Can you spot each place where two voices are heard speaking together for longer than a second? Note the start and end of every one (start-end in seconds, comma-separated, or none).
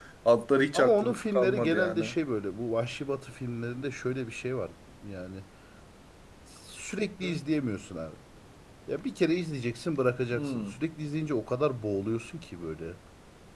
0.7-2.0